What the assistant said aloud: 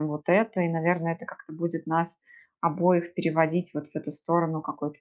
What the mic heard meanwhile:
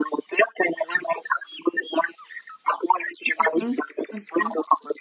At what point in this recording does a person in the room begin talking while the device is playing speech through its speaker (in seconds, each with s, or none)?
3.4 s